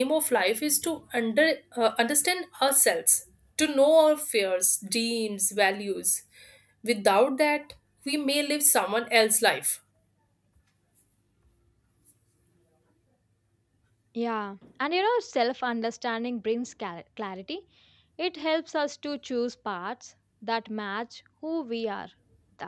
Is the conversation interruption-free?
Yes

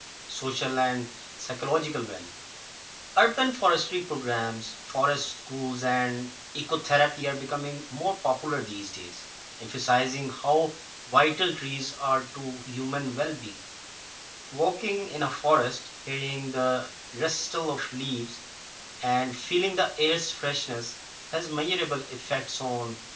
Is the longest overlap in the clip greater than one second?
No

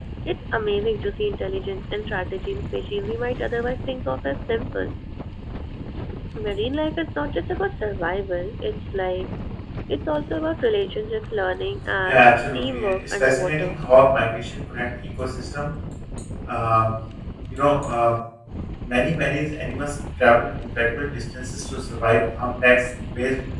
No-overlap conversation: No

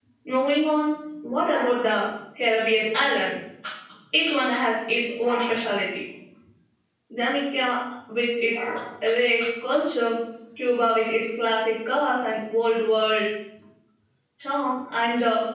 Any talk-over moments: No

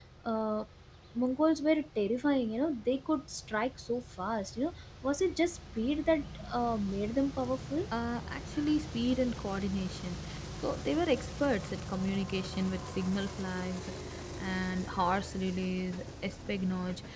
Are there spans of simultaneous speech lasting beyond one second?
No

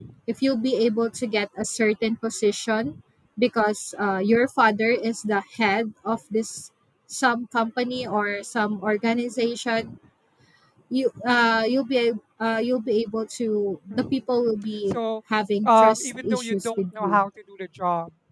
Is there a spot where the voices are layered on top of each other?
Yes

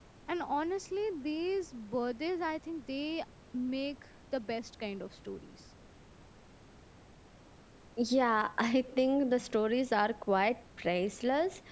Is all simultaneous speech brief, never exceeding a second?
Yes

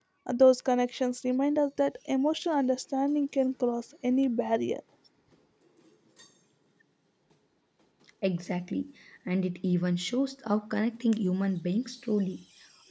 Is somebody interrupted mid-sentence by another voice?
No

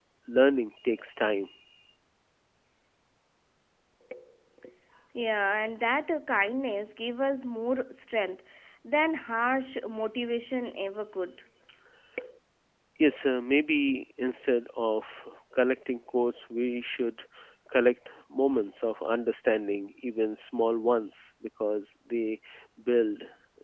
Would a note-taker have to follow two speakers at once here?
No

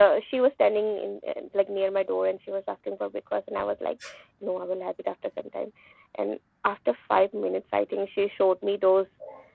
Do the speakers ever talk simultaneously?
No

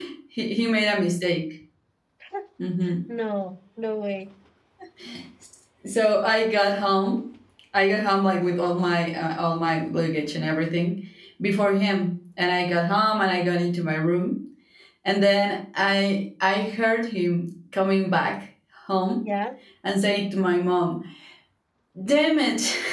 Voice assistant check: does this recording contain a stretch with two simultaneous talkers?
No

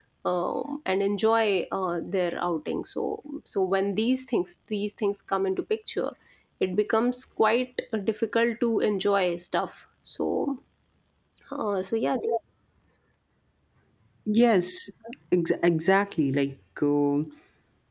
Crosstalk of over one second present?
No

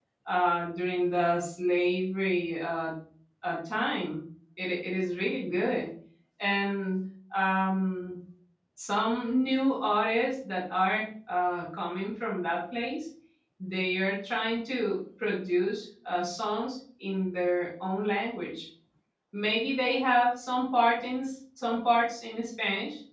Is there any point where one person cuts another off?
No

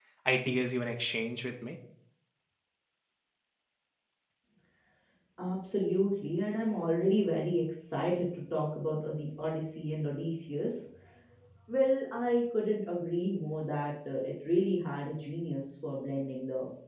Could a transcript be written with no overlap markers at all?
Yes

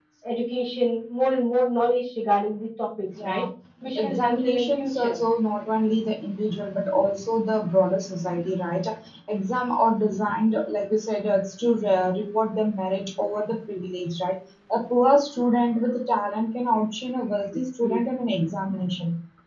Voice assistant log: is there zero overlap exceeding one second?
No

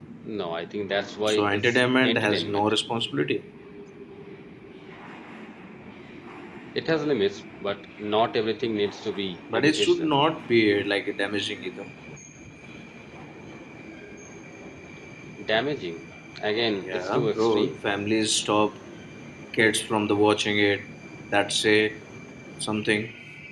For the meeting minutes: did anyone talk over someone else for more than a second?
Yes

